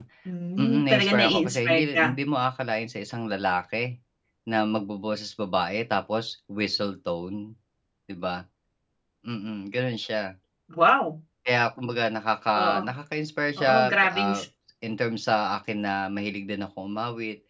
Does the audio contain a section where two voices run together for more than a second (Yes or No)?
Yes